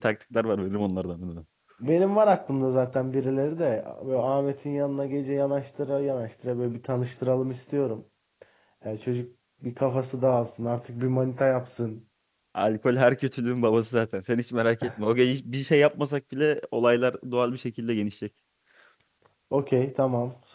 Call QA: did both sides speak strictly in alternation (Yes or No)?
Yes